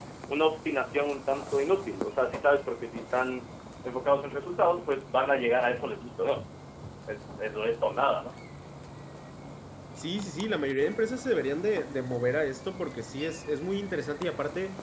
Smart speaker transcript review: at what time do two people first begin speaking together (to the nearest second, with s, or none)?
none